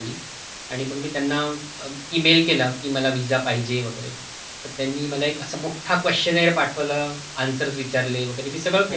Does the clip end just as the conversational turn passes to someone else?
Yes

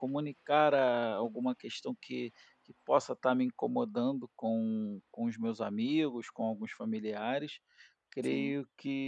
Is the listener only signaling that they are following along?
Yes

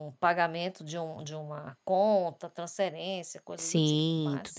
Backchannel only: No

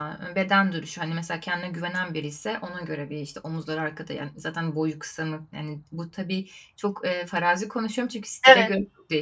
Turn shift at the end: No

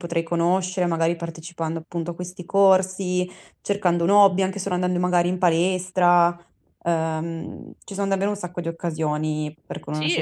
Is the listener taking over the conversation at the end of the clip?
Yes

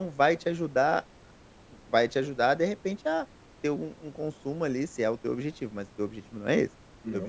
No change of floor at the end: Yes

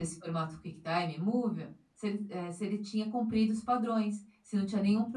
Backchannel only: Yes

